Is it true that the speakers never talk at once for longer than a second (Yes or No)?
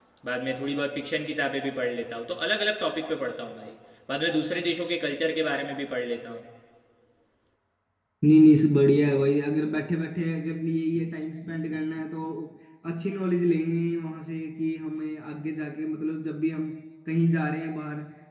Yes